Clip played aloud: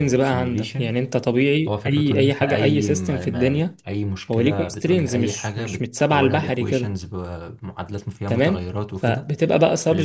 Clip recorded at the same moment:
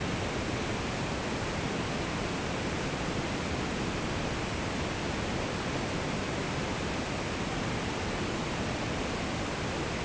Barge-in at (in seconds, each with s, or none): none